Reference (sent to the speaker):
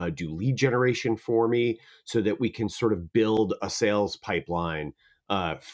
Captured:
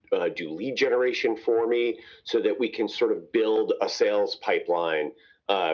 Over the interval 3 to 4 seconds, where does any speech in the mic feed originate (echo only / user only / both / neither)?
echo only